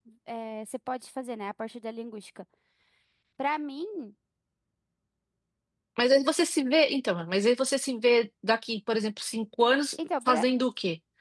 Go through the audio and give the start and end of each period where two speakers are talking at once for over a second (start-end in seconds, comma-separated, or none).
none